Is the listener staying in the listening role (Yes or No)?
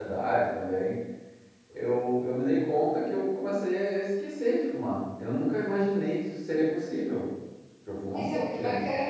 No